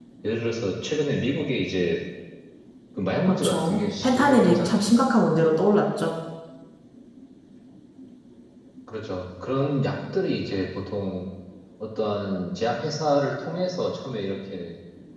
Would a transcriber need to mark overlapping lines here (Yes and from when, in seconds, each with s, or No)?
Yes, from 3.3 s